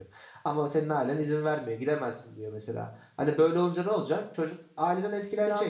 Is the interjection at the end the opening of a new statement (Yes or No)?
Yes